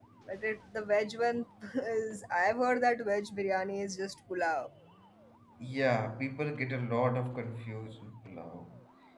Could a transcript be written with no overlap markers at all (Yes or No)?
Yes